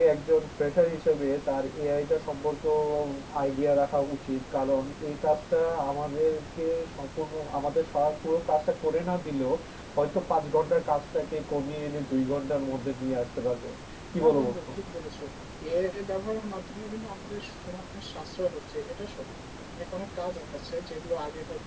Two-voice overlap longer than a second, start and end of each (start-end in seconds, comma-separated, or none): none